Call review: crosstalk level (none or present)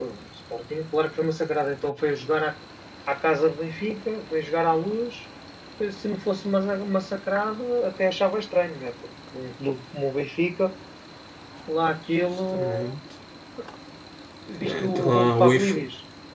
present